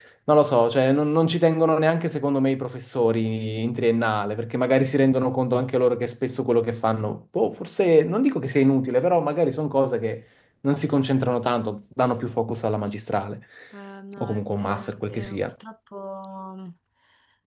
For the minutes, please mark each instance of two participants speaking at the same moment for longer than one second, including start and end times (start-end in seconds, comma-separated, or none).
14.2-15.5